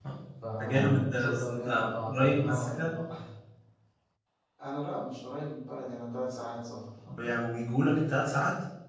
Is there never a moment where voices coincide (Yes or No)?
No